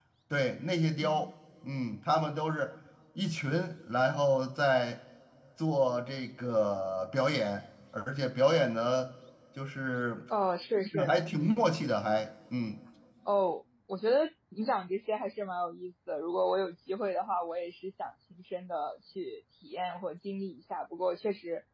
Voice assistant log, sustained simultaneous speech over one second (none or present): none